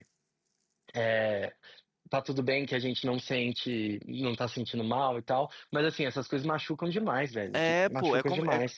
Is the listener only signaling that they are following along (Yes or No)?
No